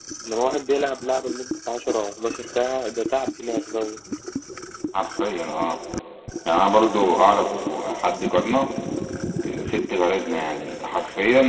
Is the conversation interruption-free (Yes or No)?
Yes